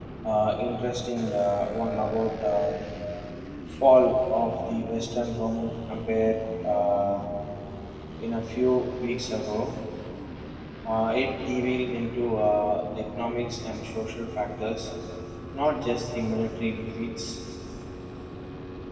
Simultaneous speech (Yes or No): No